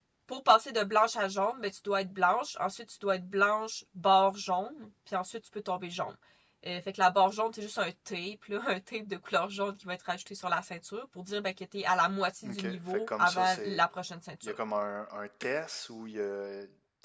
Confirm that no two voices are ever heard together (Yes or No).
No